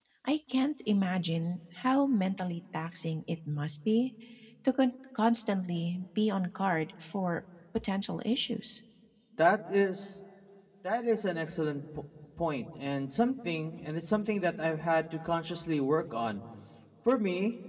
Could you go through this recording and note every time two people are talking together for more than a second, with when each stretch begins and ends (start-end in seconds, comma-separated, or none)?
none